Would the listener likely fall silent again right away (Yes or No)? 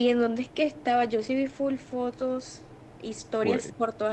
Yes